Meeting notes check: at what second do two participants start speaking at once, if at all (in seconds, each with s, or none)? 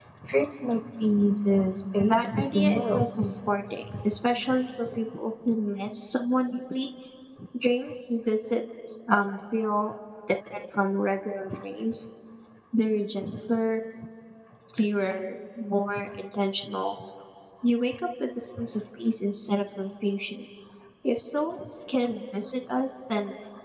2.0 s